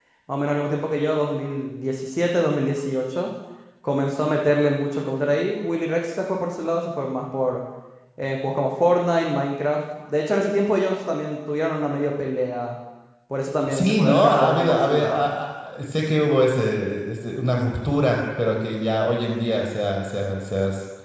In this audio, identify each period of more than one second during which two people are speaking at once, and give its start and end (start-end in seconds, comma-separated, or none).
13.7-15.3